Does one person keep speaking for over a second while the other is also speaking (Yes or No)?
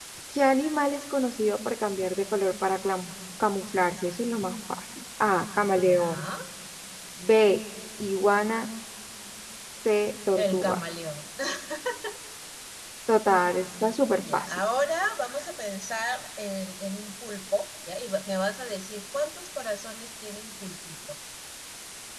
No